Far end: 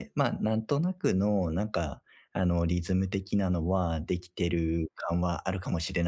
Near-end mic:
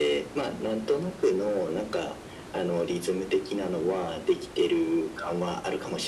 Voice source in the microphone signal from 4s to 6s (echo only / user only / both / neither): echo only